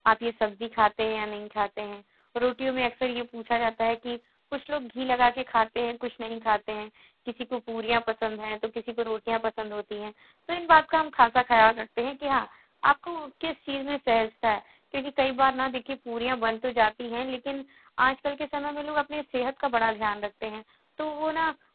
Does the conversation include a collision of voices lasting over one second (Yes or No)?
No